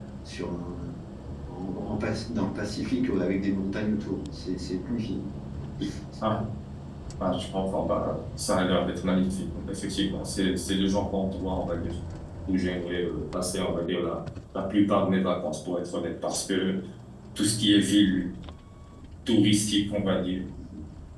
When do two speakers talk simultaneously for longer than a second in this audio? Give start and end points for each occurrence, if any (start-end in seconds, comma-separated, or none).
none